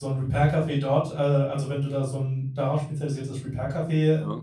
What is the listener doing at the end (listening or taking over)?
listening